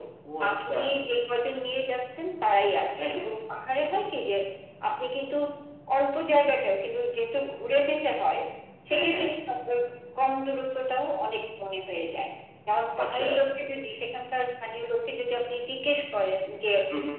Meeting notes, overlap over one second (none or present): none